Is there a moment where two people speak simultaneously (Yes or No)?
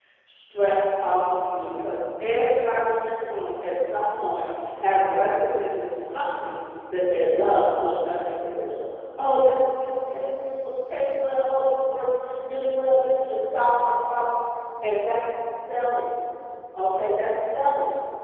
No